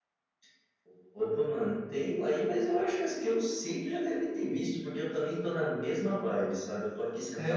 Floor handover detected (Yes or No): No